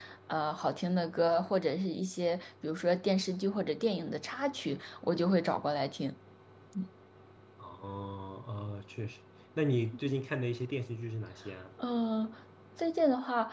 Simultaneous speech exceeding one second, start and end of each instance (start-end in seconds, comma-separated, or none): none